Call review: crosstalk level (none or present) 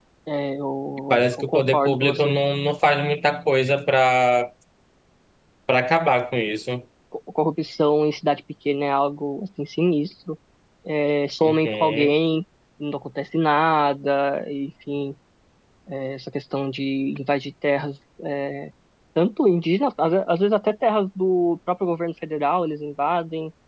present